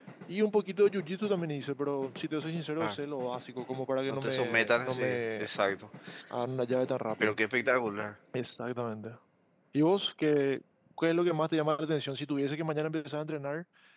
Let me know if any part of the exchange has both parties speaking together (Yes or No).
Yes